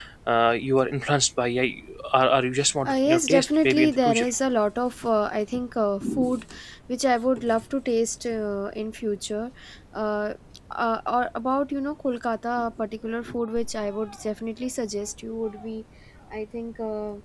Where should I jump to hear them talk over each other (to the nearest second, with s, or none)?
3 s